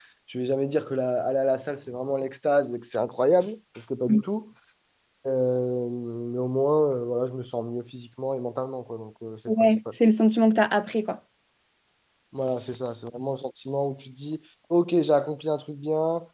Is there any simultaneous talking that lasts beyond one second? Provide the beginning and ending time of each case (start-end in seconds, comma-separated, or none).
none